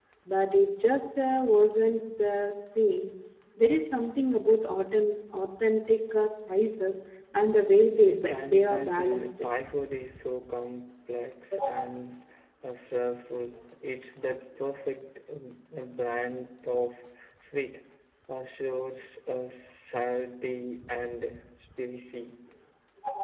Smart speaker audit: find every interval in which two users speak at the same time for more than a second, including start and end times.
8.0-9.3

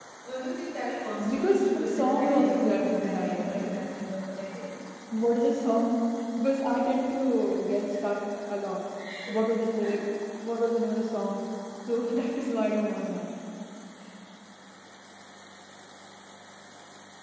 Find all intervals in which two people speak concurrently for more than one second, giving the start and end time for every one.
1.3-3.7

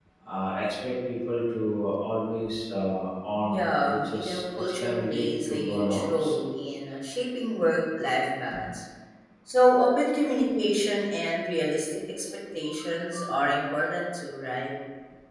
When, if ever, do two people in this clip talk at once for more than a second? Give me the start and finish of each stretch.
3.5-6.3

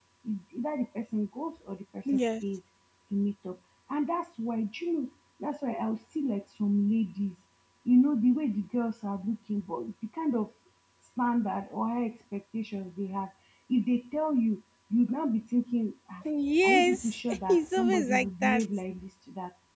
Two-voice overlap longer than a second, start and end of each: 16.6-18.6

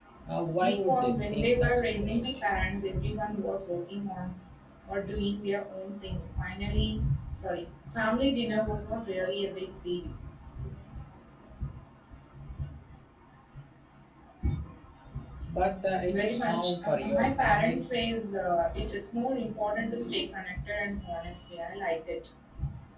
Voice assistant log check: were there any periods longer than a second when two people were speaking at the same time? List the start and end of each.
0.6-2.4, 16.1-17.9

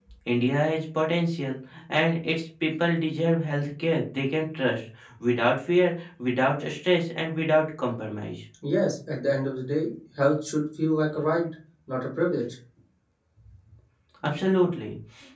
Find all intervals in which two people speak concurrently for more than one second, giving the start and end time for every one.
none

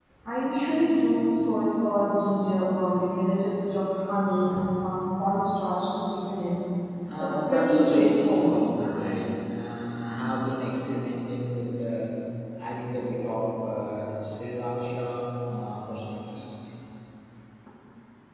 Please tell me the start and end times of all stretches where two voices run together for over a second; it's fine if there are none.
7.2-8.6

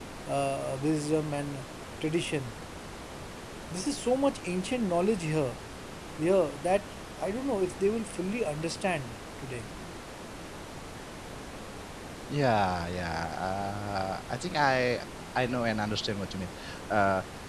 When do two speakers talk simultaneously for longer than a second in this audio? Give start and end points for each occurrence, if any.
none

